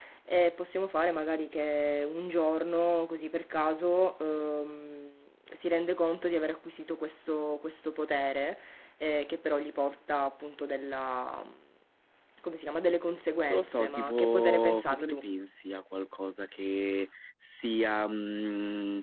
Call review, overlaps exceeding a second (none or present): present